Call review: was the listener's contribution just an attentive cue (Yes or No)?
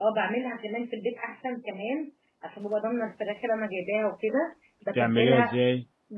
Yes